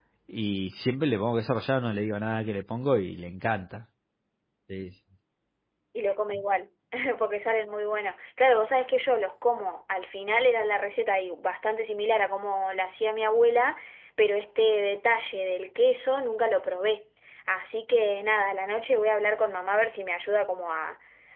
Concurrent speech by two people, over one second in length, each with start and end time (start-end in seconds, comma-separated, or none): none